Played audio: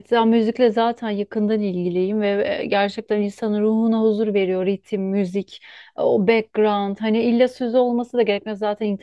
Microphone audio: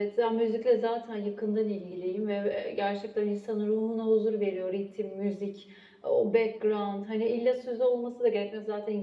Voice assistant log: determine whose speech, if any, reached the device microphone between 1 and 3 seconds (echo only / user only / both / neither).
echo only